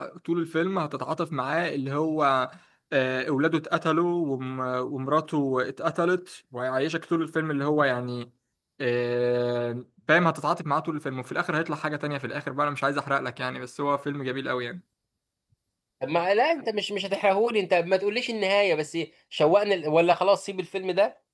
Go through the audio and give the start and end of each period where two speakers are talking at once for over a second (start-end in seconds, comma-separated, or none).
none